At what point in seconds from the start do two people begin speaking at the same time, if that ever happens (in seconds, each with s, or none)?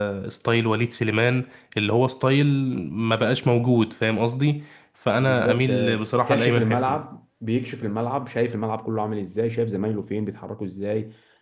5.2 s